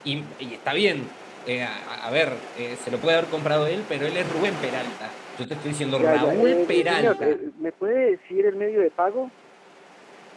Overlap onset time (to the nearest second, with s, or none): 6 s